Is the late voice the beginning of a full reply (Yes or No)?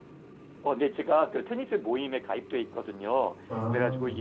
No